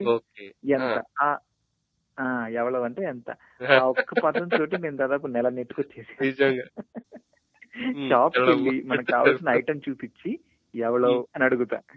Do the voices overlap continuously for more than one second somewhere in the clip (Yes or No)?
Yes